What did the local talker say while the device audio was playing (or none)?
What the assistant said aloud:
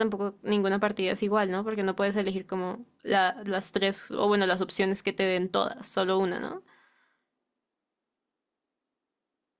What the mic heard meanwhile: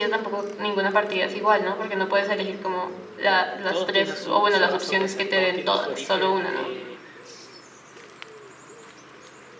todos tienen su, su razón de ser, todos tienen su origen eh,